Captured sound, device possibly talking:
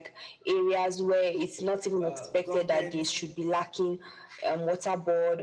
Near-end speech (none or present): present